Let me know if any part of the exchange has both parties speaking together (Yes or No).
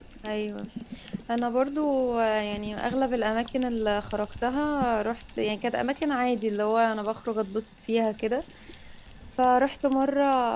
No